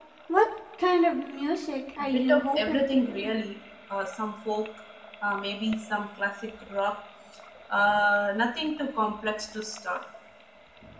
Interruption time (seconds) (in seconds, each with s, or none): 2.0 s